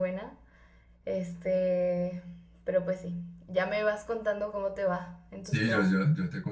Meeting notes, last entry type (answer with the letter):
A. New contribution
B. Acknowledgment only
A